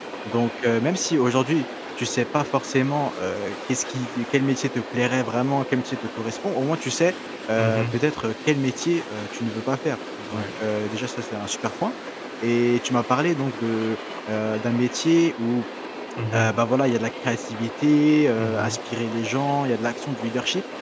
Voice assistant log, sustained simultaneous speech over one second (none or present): none